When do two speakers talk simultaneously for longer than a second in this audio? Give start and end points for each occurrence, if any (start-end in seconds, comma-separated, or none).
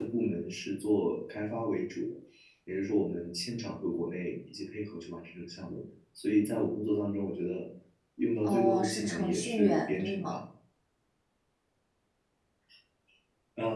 8.4-10.4